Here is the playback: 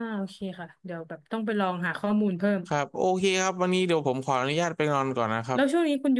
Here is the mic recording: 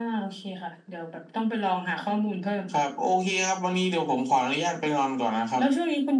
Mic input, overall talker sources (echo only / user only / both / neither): echo only